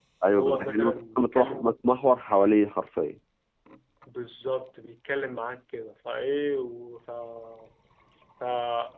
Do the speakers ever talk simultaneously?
Yes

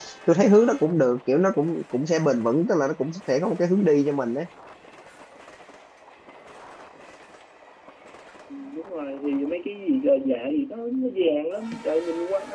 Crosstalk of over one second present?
No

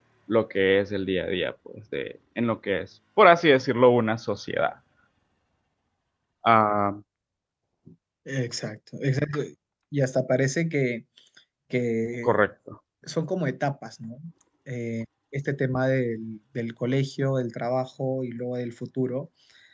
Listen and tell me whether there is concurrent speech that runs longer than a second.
No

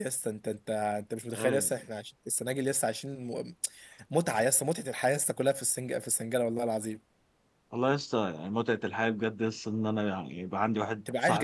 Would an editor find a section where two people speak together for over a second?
No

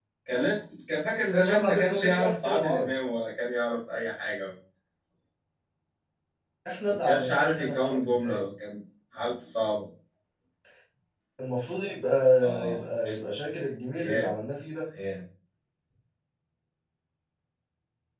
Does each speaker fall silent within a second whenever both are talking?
No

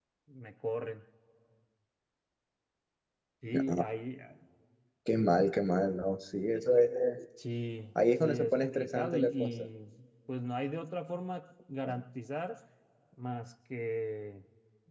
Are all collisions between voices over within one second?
No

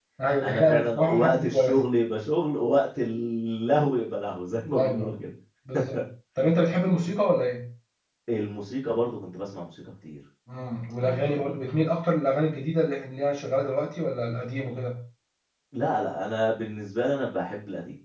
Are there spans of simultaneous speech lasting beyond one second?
Yes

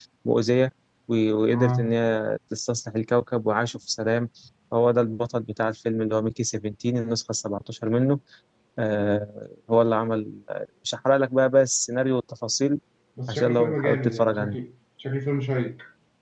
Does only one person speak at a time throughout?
No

